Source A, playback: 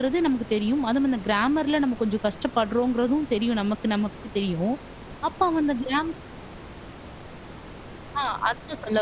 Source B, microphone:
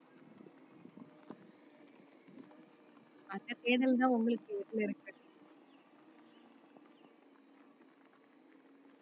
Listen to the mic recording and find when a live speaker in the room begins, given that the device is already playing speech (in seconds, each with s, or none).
3.4 s